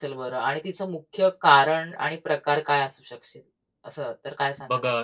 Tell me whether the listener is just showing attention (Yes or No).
No